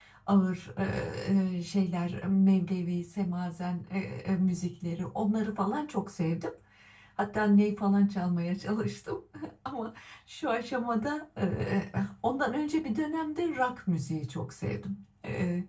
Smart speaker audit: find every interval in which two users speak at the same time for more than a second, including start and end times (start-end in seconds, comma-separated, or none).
none